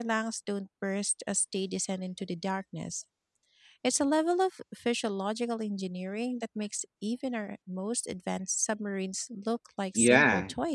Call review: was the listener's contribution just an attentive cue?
No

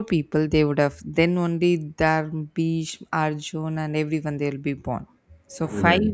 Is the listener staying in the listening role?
Yes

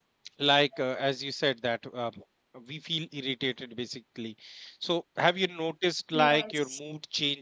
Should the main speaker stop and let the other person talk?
No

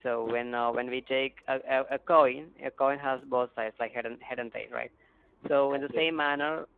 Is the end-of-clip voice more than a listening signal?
No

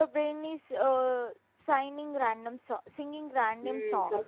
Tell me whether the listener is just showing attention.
No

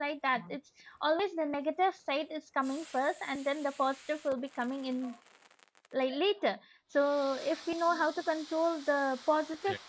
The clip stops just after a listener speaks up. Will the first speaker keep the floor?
Yes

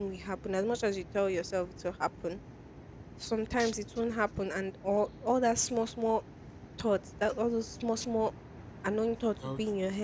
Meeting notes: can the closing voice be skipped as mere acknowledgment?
Yes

